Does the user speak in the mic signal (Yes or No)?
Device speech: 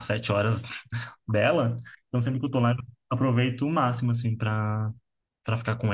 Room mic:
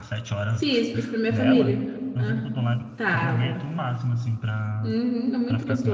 Yes